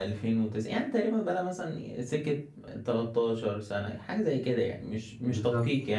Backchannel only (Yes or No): Yes